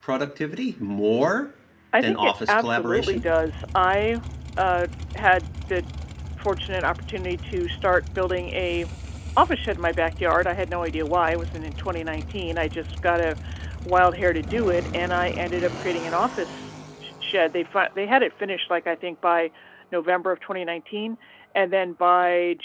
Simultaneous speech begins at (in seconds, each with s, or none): 2.0 s